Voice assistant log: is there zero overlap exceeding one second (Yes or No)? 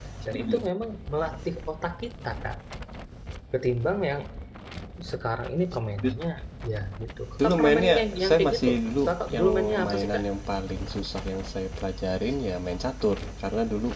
No